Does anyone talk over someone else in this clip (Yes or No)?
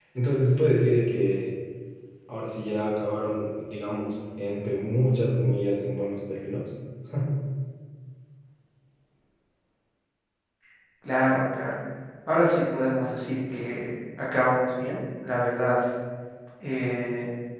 No